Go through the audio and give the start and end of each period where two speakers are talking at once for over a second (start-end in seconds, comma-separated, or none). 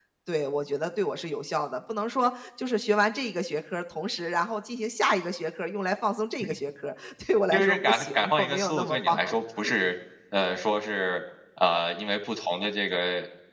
7.5-9.2